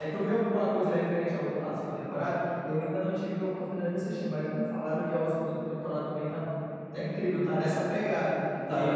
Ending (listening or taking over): listening